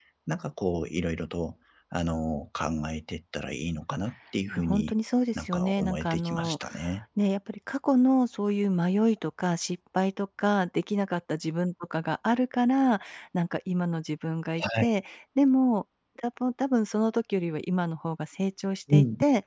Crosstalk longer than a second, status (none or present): present